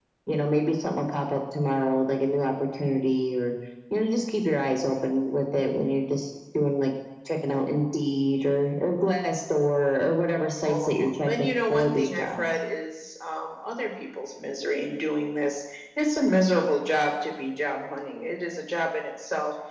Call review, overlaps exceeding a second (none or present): present